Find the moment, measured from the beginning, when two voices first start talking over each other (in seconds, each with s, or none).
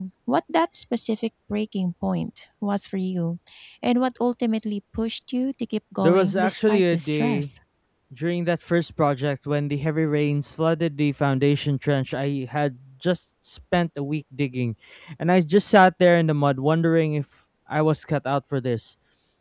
6.0 s